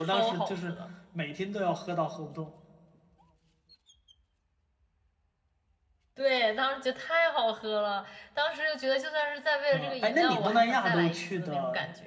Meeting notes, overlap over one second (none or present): present